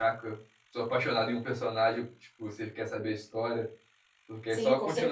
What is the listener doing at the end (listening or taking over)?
taking over